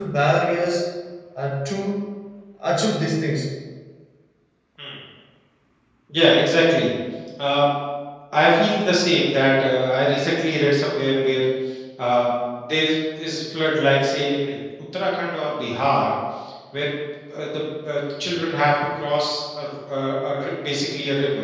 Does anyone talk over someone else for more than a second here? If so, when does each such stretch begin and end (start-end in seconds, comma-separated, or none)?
none